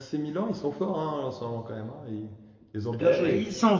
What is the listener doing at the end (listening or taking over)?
taking over